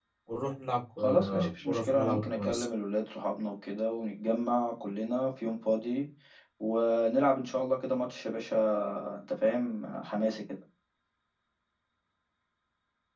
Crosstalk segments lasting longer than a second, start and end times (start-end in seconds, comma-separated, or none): 1.0-2.6